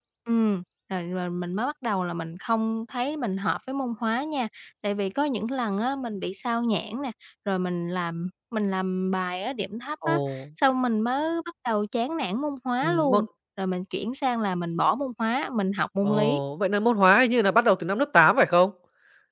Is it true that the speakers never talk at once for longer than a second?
Yes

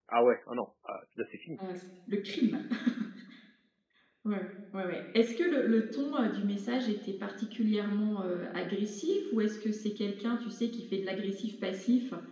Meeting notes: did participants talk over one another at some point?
No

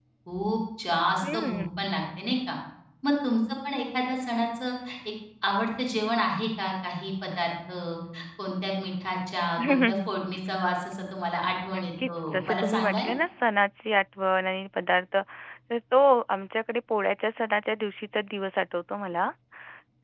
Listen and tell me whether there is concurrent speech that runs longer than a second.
Yes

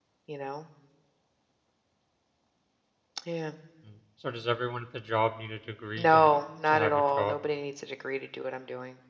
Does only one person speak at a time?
No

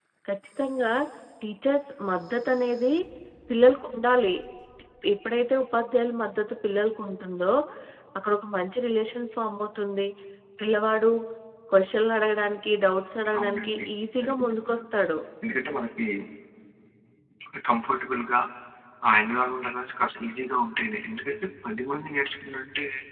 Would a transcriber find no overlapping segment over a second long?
No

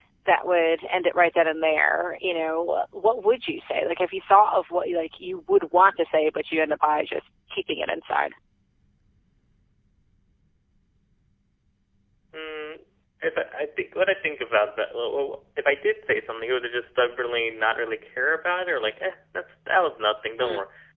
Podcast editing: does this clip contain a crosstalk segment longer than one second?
No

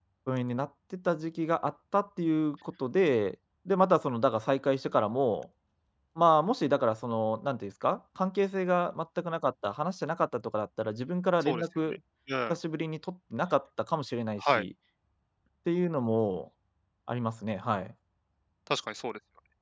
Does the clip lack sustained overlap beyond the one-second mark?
Yes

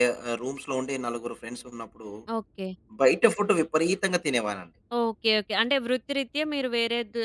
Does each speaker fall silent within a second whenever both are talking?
Yes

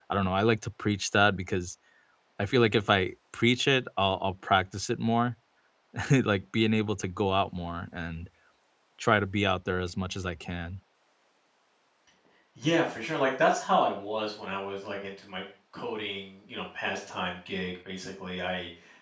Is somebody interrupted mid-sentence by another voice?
No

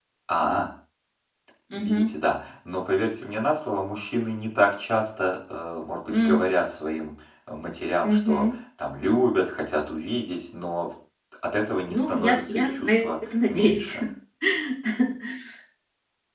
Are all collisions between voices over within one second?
No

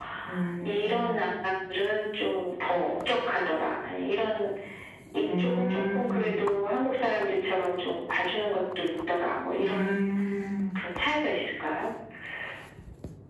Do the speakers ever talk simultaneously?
Yes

